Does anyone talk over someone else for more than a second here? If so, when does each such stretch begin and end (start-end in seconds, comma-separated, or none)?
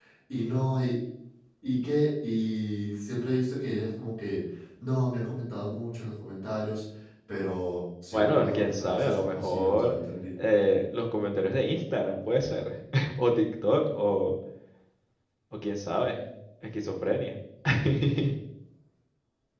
8.1-9.9